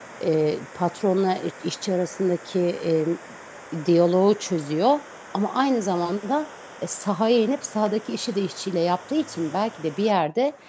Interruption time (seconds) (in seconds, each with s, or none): none